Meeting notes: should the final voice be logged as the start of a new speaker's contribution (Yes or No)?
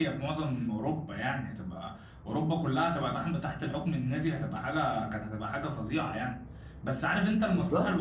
No